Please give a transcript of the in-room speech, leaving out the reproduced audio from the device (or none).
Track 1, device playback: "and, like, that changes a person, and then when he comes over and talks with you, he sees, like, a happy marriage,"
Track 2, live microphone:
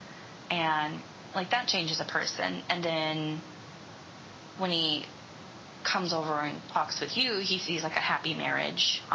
none